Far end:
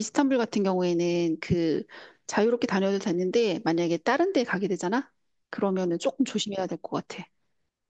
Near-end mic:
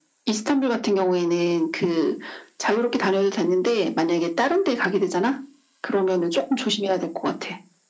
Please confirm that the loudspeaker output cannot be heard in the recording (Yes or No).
No